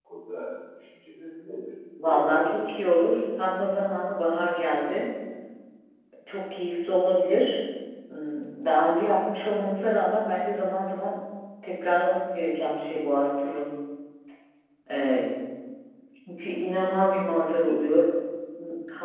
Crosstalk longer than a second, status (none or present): present